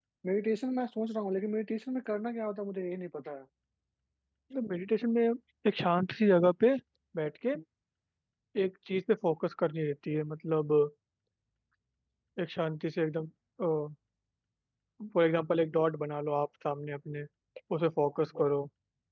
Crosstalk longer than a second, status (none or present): none